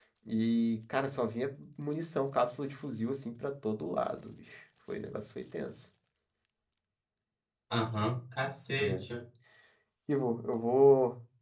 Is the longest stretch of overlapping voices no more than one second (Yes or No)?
Yes